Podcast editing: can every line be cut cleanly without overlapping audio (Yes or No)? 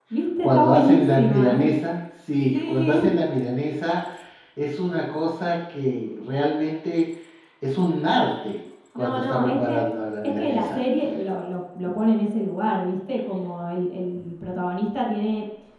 No